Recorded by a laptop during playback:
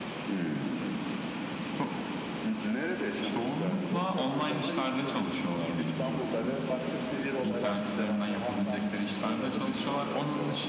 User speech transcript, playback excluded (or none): Çok seven de var, hiç sevmeyen de var. Hı,